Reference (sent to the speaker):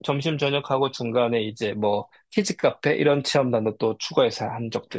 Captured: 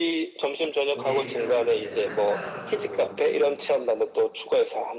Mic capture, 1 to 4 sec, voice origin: both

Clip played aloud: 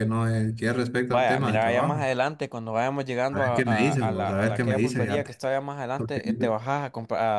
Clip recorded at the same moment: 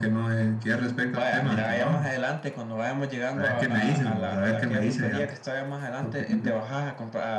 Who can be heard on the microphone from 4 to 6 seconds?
echo only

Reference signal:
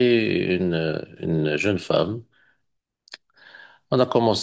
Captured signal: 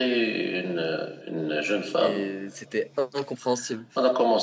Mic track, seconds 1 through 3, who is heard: both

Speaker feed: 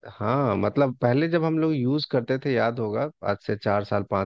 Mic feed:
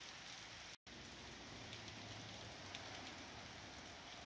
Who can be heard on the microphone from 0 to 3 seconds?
neither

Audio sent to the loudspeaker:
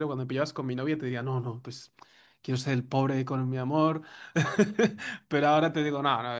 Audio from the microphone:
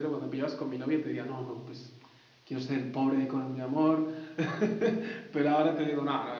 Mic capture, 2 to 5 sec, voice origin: echo only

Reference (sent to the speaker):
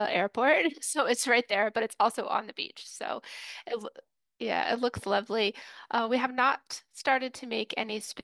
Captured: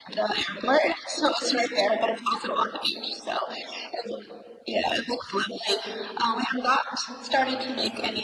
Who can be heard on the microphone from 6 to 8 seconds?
both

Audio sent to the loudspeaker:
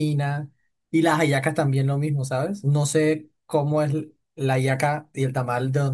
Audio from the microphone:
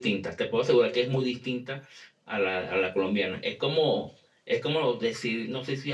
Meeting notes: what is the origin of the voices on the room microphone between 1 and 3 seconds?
user only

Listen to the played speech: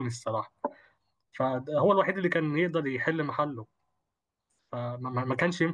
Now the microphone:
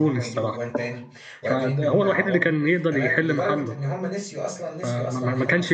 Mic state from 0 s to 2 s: both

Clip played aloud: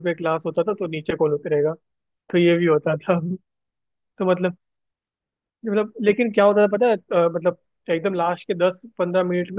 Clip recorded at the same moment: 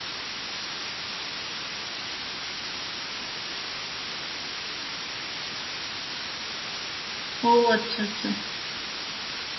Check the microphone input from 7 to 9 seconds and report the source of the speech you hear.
user only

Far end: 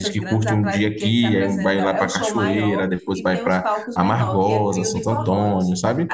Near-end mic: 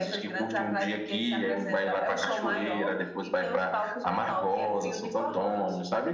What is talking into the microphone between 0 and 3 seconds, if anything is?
echo only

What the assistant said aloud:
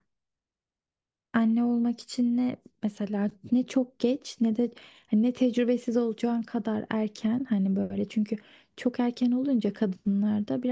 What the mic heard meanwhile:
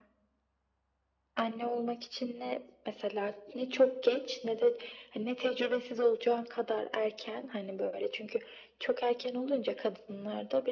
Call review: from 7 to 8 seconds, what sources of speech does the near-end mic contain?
echo only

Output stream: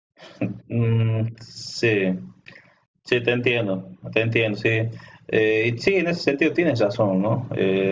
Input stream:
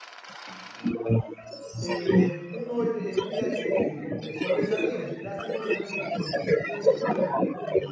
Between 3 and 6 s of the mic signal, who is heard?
both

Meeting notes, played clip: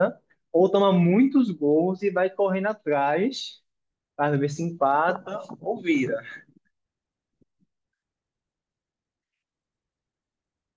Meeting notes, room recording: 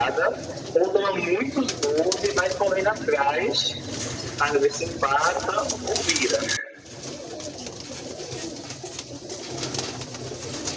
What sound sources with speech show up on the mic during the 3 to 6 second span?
echo only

